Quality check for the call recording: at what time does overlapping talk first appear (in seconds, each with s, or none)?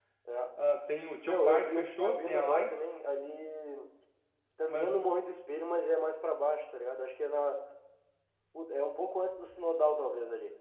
1.2 s